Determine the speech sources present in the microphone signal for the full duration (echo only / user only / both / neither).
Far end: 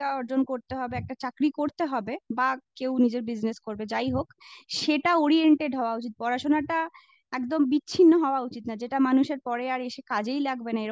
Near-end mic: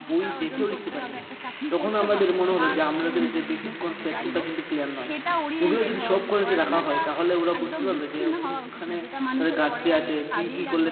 both